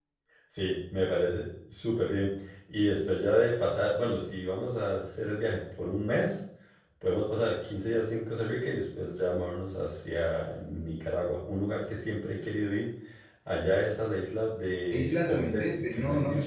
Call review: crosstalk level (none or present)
present